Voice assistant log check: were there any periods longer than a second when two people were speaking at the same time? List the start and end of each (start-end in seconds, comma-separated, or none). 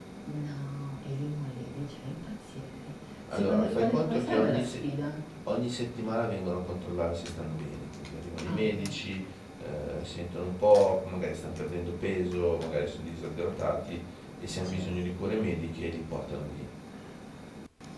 3.3-4.8